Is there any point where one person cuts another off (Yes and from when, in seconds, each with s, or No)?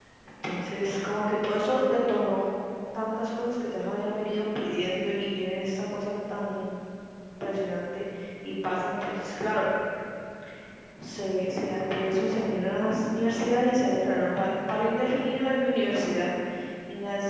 No